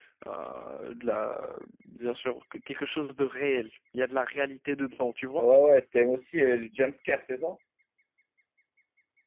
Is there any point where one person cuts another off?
No

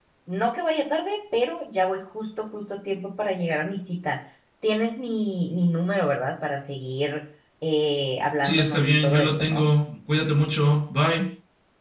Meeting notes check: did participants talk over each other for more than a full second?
Yes, from 8.4 s

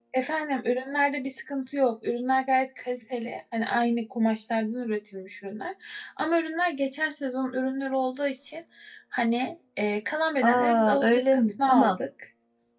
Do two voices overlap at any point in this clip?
Yes, from 10.4 s

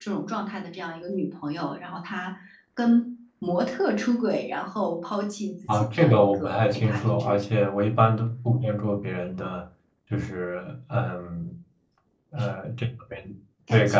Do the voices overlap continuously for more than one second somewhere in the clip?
Yes, from 5.7 s

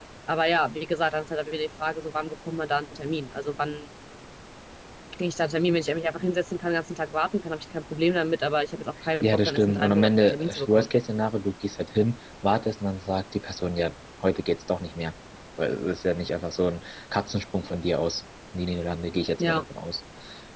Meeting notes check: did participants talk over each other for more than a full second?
Yes, from 9.2 s

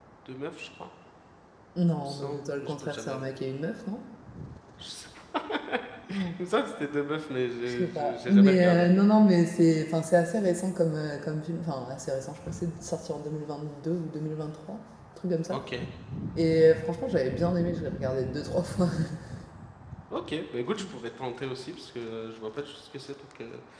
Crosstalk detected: Yes, from 2.0 s

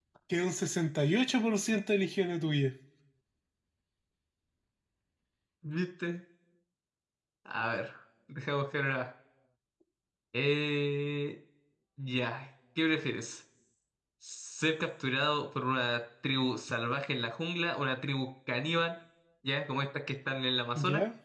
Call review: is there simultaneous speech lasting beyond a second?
No

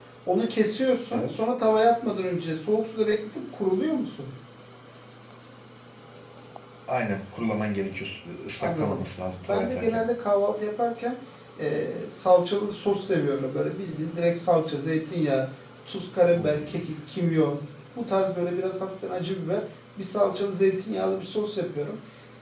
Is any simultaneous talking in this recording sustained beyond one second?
No

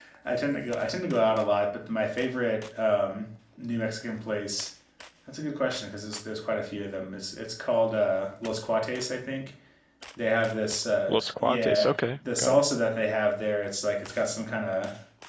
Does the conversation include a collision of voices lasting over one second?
Yes, from 11.1 s

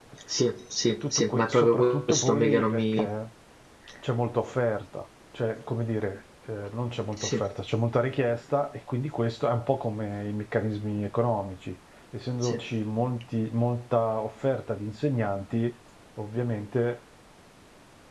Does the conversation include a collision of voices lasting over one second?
Yes, from 0.9 s

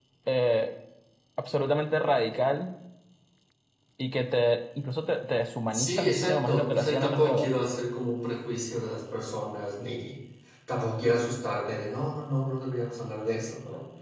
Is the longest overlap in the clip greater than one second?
Yes, from 5.7 s

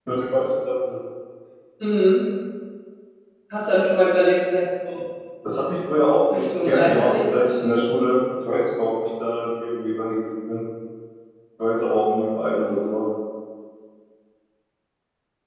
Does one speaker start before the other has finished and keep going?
Yes, from 6.3 s

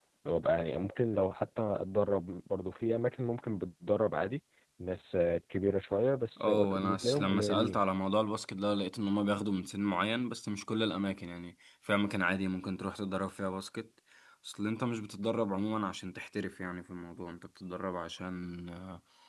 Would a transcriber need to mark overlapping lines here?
Yes, from 6.4 s

